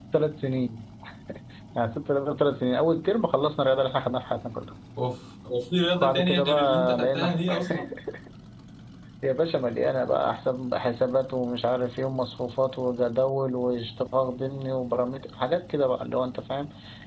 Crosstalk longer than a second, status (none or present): present